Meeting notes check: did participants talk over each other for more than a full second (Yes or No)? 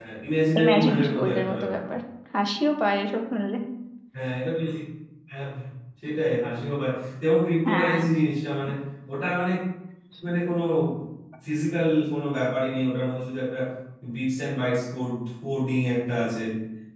Yes